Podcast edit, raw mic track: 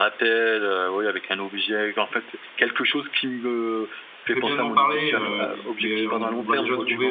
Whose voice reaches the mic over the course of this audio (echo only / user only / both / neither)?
both